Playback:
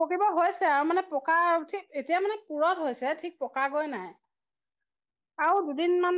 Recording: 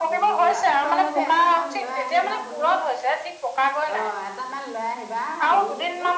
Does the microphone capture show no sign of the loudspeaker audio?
No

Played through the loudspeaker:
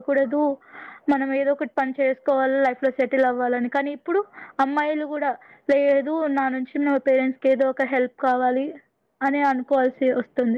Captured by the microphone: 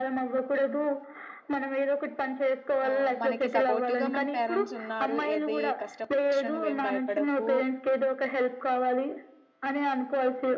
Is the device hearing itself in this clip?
Yes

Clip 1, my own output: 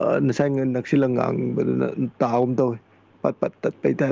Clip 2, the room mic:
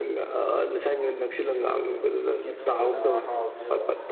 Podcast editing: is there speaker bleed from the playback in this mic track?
Yes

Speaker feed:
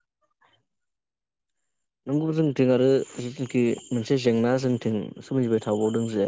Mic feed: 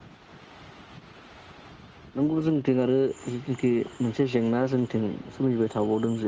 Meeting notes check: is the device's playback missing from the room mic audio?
No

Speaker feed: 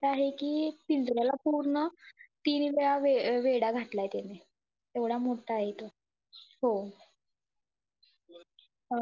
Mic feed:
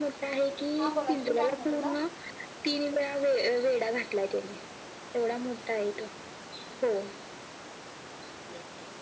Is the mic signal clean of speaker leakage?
No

